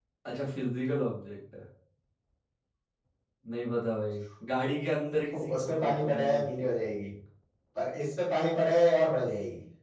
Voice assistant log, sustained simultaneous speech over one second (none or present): present